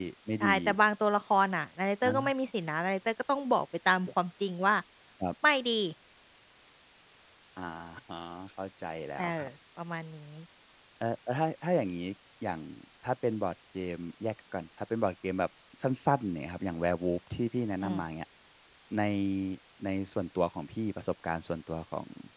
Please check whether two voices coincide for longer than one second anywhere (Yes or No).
No